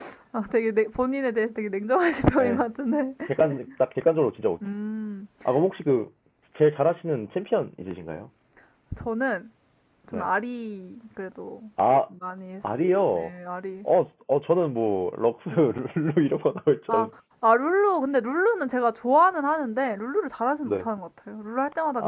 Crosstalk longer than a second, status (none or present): none